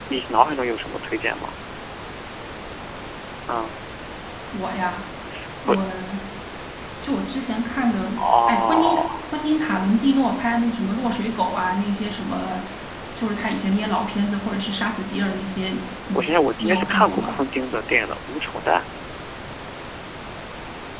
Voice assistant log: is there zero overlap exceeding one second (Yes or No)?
No